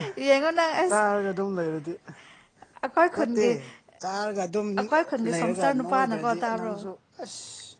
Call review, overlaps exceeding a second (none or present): present